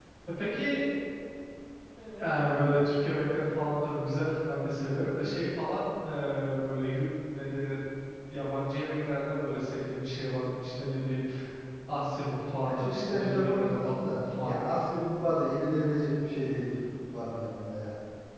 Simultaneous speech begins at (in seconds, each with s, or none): 12.6 s